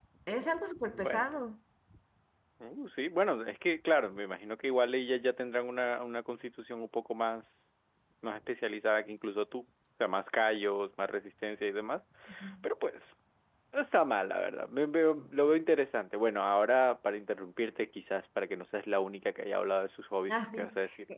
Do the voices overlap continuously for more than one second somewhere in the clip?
No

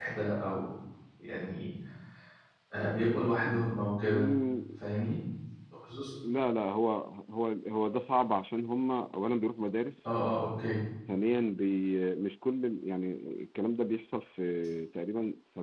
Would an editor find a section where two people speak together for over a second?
No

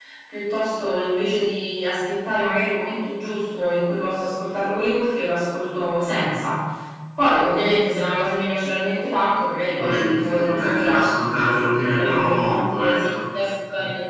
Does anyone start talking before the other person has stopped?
Yes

